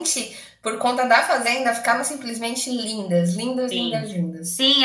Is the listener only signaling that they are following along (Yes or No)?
No